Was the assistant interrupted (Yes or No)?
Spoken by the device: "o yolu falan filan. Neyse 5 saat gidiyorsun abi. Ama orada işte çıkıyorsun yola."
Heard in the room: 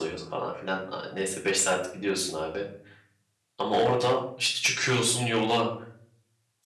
No